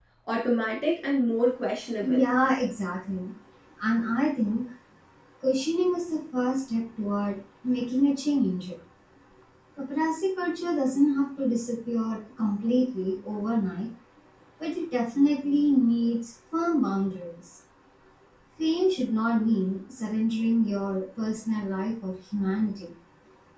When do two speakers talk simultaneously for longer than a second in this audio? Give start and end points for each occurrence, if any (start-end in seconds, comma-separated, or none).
none